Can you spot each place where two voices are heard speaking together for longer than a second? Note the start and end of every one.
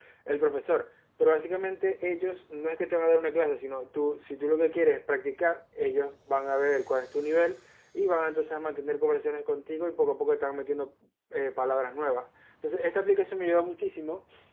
none

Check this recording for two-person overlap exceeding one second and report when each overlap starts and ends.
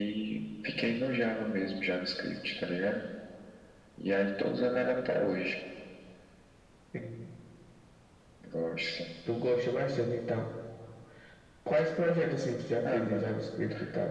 none

